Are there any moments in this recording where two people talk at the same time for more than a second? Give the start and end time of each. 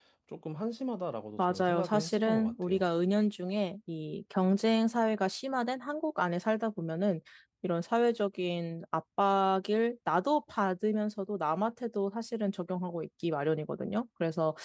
1.4-2.8

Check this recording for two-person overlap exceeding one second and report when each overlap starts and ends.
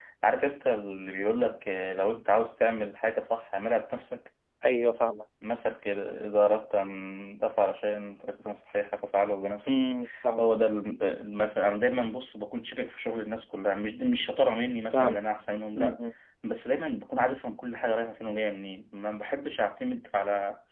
none

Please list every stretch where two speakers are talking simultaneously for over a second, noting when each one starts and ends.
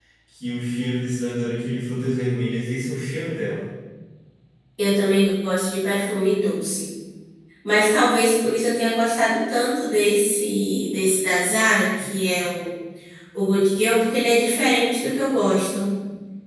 none

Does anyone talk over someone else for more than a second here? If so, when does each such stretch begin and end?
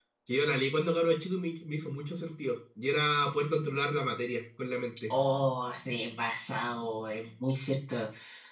none

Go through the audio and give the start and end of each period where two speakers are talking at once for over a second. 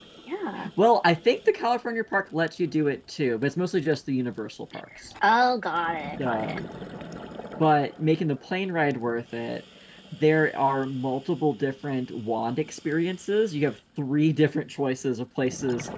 none

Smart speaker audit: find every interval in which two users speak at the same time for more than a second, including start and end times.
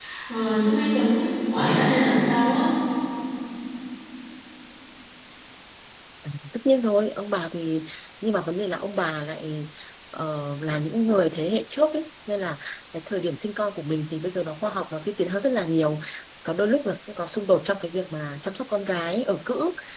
none

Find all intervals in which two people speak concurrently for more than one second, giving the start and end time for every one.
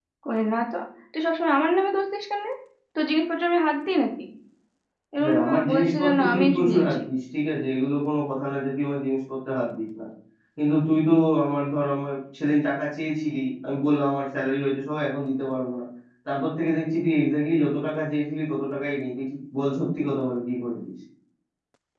5.2-7.0

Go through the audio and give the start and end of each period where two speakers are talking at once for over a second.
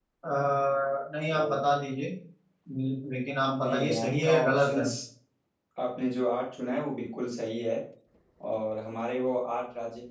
3.6-4.9

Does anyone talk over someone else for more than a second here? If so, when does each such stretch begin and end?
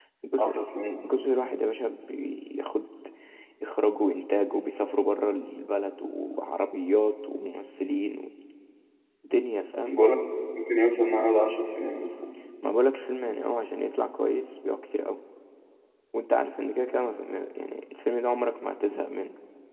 none

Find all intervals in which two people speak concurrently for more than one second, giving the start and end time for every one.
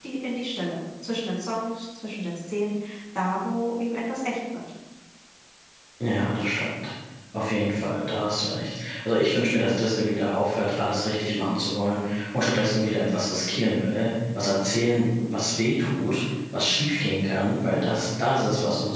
none

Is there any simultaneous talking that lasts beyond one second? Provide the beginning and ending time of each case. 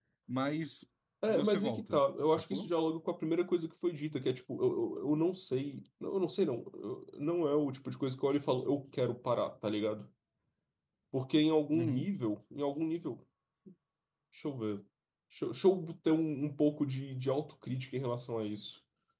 1.3-2.7

